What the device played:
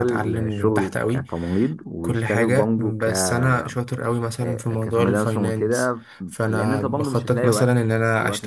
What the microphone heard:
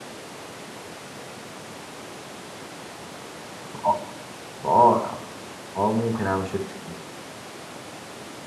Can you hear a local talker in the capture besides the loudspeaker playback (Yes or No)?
Yes